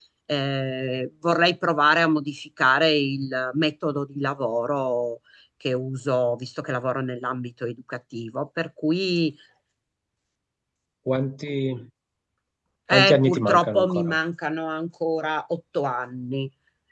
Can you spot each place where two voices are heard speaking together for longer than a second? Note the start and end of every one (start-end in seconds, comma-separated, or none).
12.9-14.1